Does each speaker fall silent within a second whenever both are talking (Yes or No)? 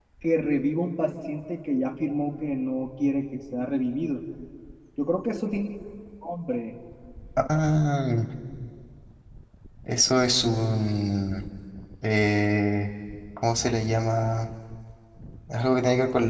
Yes